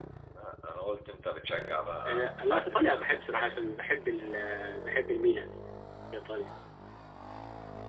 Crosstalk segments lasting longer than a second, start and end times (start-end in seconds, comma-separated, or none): 2.0-3.6